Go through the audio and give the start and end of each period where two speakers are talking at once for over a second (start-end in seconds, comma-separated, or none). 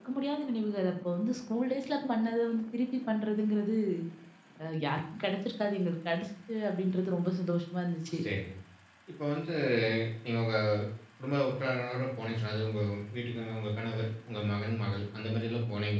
none